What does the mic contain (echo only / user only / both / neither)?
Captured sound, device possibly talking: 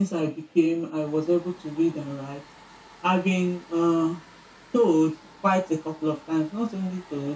echo only